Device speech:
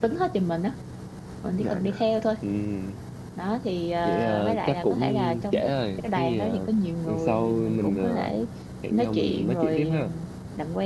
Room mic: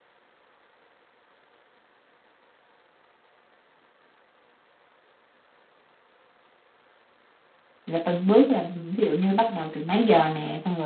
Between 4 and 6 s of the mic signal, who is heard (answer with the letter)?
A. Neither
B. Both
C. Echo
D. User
A